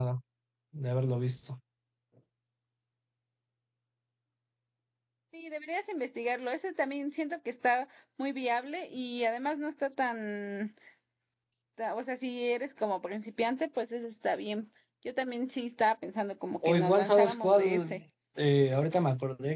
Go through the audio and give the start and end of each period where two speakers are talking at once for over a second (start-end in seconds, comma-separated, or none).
16.6-18.0